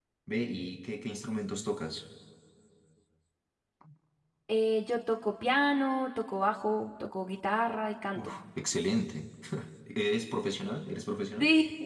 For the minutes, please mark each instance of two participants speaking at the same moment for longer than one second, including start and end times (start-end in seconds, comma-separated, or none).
none